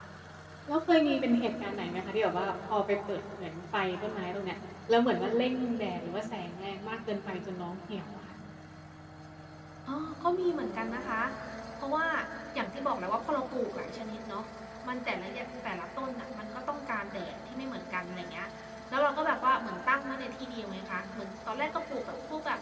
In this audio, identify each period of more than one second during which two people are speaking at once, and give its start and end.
none

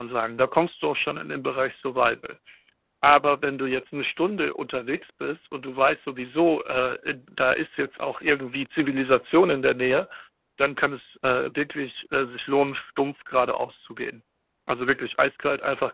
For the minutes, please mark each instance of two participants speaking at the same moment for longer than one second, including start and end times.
none

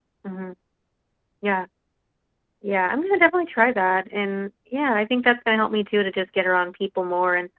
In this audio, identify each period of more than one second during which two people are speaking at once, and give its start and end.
none

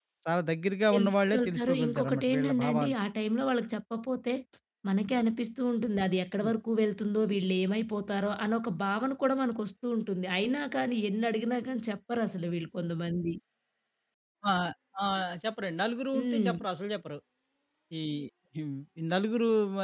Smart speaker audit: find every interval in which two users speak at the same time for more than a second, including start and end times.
0.9-2.9

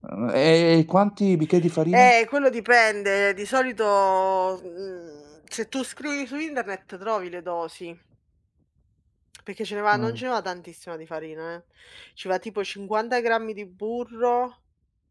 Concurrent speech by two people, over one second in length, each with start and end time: none

